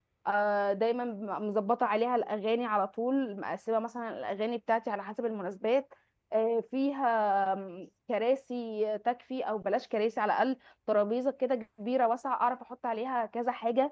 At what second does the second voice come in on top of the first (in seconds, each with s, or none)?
none